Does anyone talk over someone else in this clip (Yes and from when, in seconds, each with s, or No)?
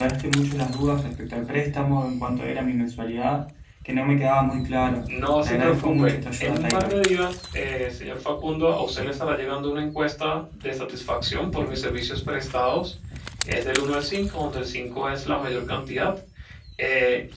Yes, from 5.4 s